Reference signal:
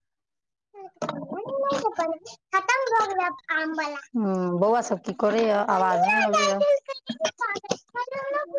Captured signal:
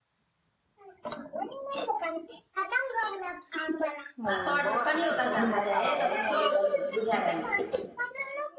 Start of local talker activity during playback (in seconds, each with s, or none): 4.3 s